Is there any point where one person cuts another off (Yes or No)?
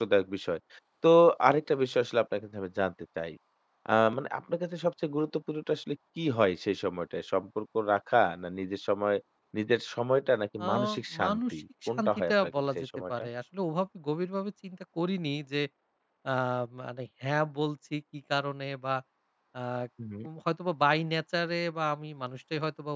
Yes